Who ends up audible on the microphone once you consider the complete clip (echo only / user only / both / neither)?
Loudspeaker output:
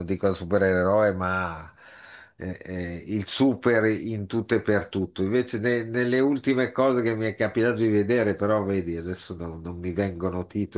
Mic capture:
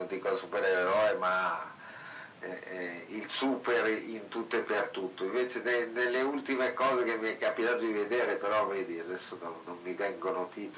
echo only